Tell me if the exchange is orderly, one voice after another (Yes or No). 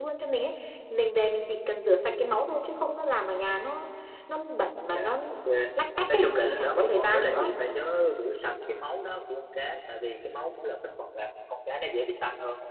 No